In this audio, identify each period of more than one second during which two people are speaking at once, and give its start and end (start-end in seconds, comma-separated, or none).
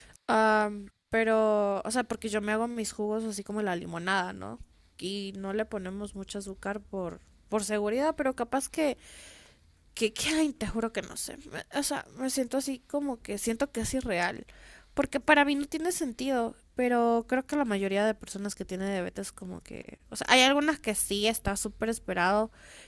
none